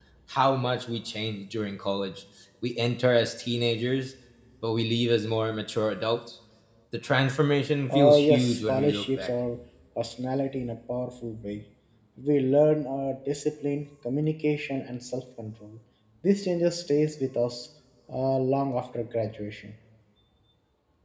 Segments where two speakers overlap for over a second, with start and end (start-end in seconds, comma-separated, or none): 7.9-9.3